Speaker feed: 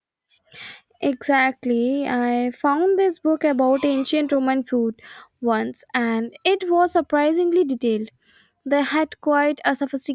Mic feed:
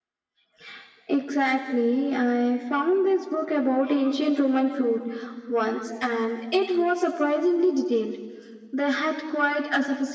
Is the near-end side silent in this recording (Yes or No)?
Yes